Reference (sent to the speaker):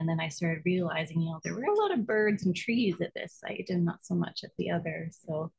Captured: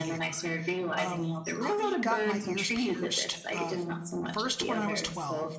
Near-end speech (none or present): present